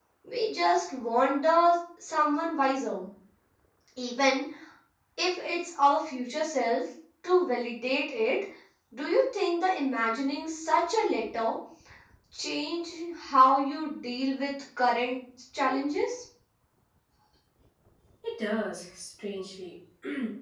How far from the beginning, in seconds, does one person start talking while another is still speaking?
none

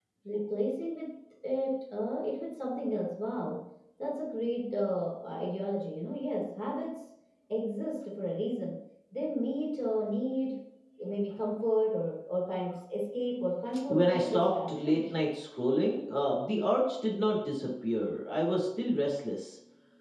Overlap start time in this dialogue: 13.9 s

